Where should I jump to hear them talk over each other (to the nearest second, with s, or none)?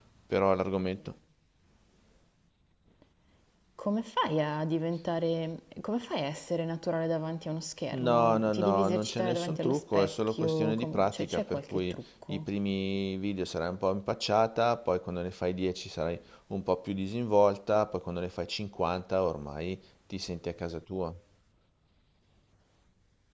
8 s